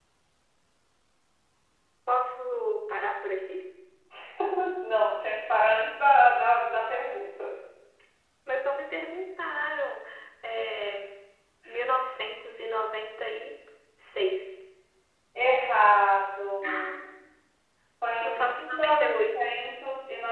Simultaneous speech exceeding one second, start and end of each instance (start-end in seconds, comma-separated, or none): 18.2-19.5